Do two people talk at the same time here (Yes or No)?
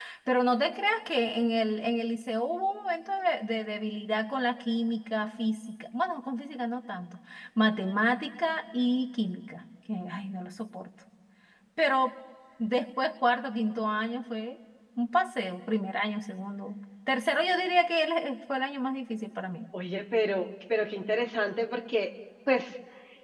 No